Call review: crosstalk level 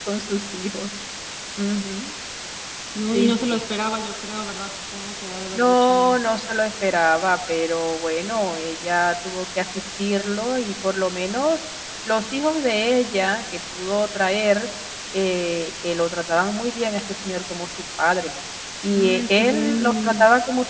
present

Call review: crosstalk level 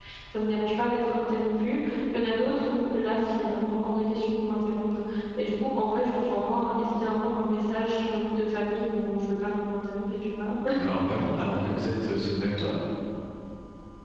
none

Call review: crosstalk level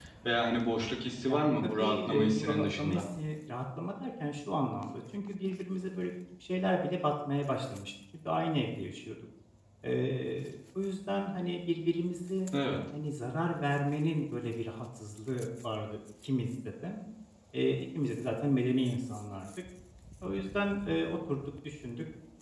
present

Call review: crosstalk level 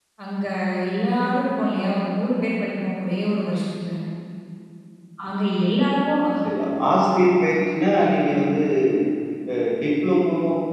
none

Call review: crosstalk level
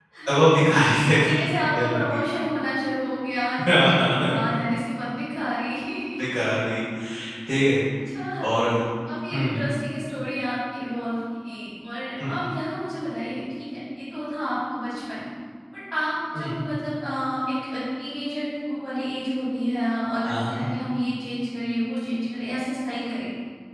present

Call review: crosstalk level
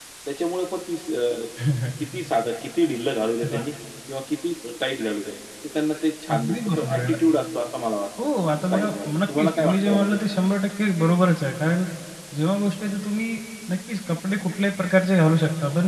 present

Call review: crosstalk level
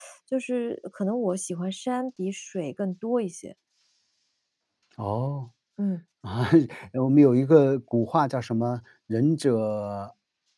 none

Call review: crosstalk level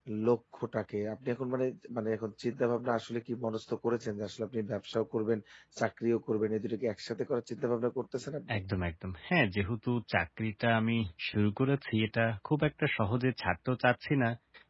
none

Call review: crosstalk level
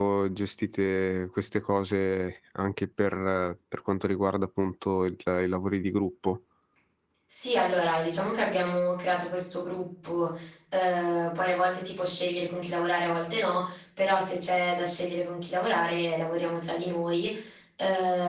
none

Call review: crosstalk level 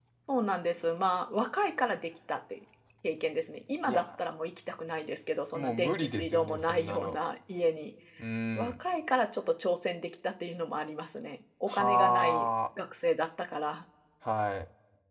present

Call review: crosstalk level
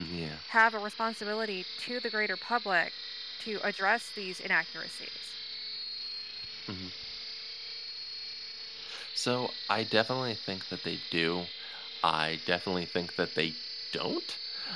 none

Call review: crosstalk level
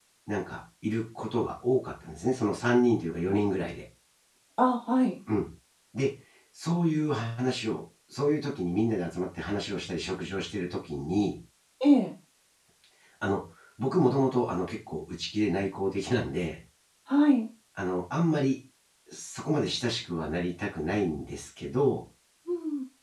none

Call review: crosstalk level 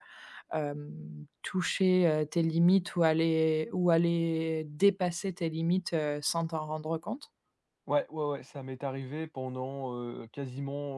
none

